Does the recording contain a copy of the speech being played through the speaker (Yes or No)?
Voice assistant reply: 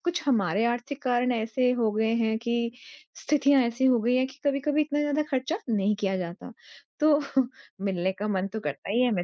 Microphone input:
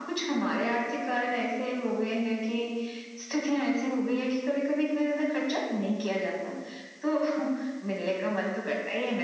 Yes